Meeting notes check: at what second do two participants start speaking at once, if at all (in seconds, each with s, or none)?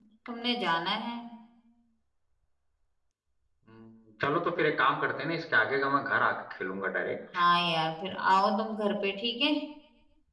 none